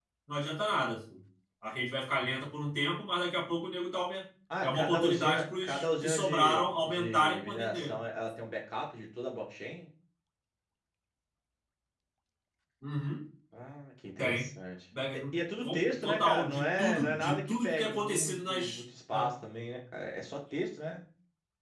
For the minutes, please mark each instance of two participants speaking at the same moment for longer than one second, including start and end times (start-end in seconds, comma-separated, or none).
4.6-8.0, 15.6-18.8